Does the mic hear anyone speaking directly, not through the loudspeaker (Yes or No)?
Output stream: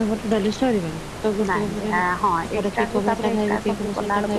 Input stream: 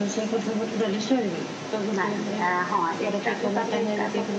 No